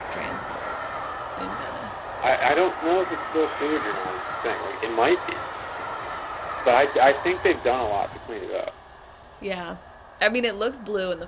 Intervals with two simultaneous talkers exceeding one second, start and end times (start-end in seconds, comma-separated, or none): none